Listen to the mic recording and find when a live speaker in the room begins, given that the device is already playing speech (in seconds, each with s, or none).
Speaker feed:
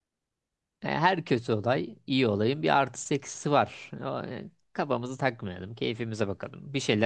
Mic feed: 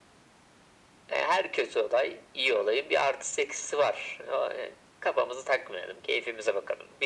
none